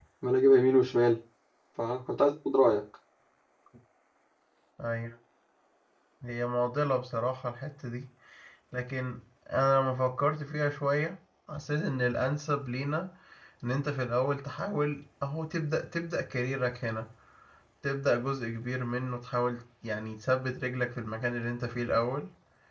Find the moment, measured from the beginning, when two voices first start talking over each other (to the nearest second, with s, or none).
none